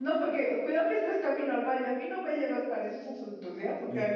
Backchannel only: Yes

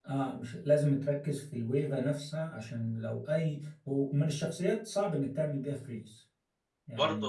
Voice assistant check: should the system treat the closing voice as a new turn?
Yes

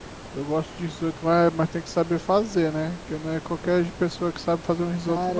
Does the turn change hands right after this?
Yes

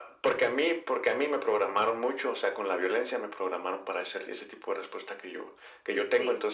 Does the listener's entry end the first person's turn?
No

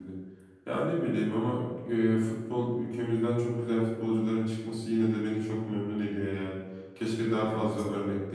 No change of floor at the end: Yes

